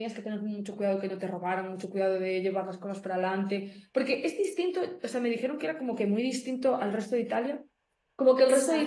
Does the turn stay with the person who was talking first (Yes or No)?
Yes